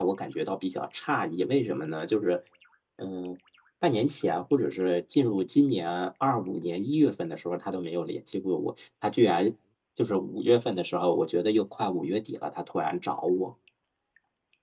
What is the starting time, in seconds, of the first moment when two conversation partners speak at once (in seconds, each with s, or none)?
none